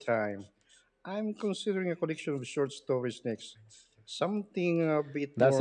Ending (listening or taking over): taking over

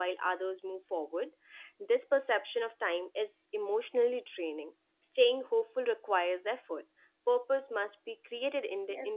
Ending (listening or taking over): taking over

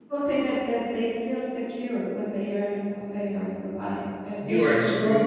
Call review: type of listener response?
taking over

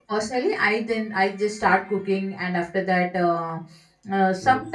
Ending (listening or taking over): listening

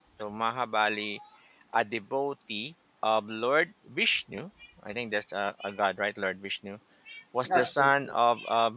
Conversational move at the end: listening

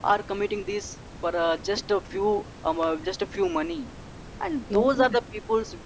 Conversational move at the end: listening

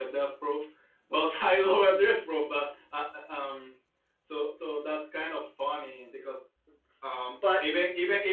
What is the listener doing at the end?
listening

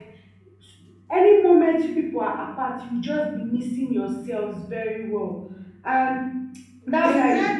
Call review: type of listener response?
taking over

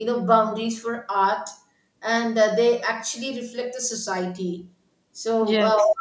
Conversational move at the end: listening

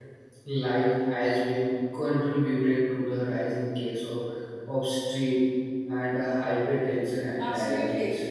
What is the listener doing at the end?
taking over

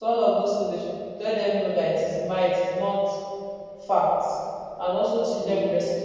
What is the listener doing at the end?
listening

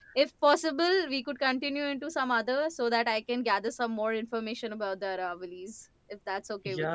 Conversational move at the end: taking over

